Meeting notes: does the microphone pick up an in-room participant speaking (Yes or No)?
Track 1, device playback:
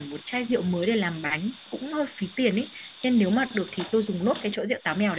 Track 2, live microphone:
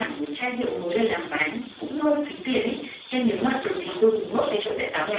No